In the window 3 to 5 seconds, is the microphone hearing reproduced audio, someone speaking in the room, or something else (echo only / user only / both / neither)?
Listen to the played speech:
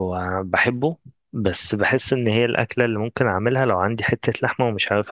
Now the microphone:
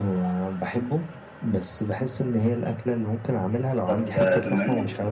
both